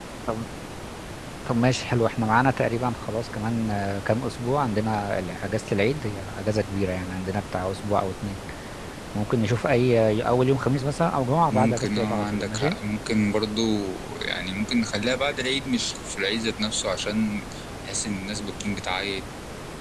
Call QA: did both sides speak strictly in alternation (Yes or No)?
No